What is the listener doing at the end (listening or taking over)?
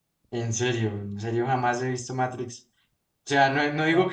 listening